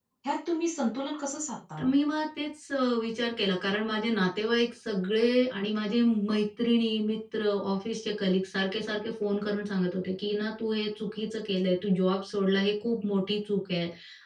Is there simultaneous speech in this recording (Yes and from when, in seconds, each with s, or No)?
No